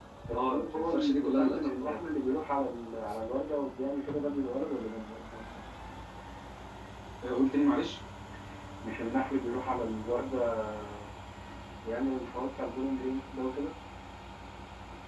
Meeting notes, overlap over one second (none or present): present